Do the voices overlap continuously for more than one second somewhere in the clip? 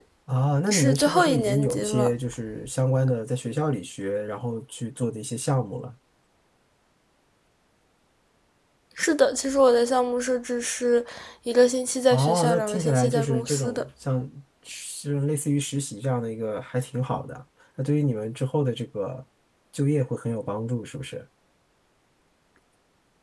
Yes, from 0.7 s

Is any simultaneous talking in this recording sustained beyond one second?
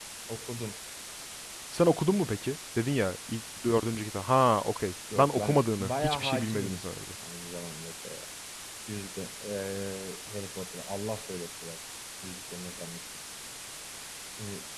Yes, from 5.1 s

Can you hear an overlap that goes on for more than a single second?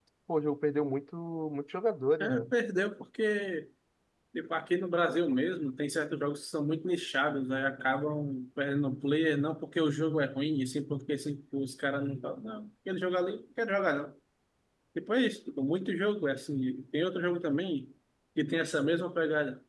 No

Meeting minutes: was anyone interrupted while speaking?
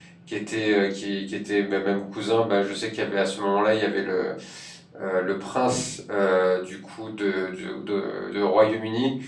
No

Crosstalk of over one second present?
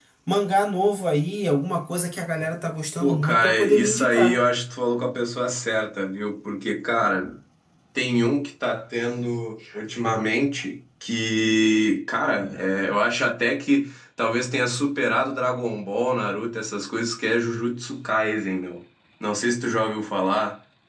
Yes, from 3.0 s

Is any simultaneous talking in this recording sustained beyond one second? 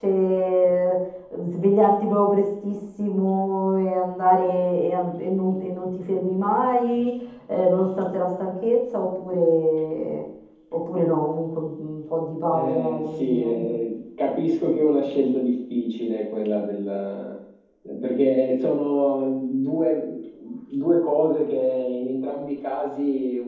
Yes, from 12.5 s

